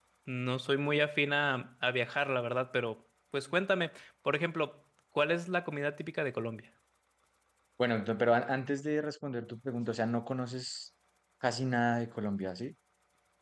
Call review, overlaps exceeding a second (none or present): none